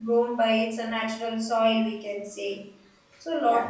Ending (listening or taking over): listening